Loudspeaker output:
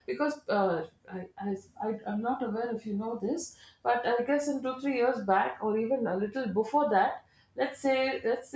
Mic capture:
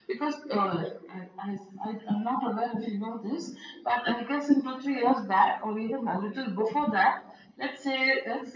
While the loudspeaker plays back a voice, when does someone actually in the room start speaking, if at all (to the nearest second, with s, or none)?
none